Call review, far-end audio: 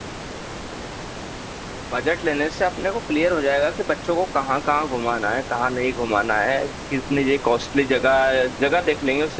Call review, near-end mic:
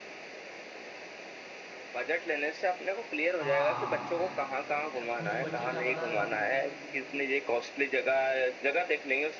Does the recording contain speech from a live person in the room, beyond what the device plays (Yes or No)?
Yes